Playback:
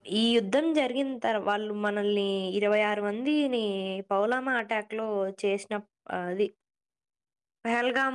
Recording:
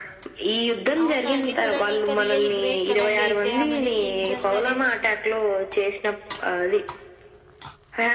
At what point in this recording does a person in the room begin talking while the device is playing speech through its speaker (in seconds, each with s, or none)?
1.0 s